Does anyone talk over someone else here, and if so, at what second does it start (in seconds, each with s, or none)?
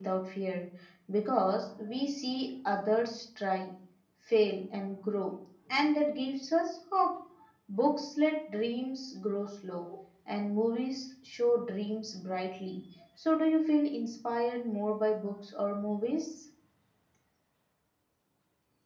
none